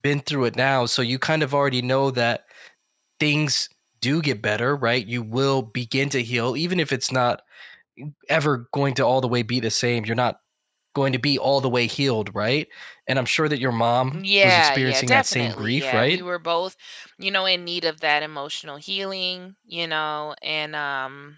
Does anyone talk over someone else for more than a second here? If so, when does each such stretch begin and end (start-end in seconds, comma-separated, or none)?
14.1-16.2